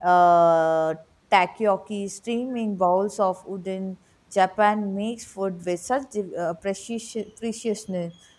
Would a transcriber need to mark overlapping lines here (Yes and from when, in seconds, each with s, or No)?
No